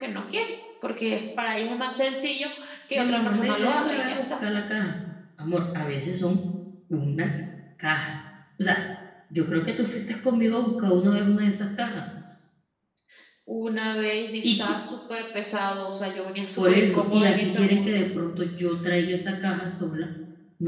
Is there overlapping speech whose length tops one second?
Yes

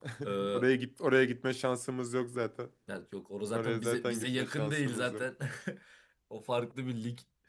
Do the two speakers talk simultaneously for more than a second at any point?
Yes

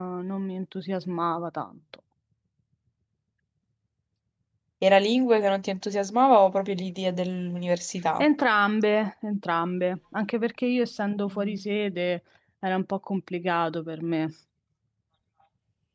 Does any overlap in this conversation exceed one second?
No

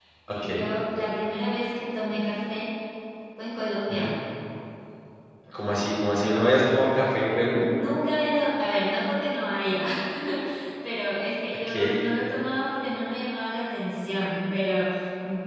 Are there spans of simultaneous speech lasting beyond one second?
No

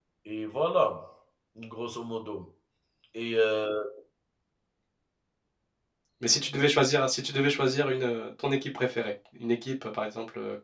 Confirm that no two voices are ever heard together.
Yes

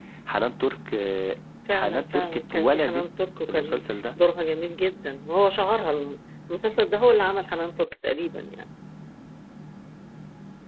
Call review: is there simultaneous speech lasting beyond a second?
Yes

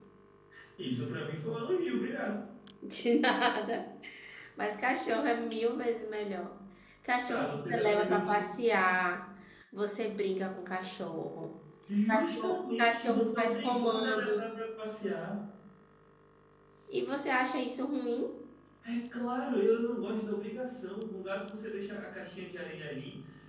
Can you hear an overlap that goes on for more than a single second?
Yes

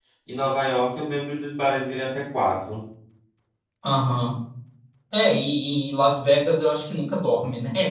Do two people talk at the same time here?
No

